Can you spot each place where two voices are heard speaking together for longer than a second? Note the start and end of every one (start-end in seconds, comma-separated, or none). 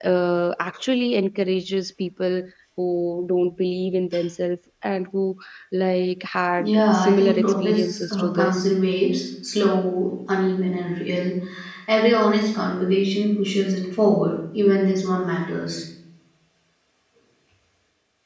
6.6-8.7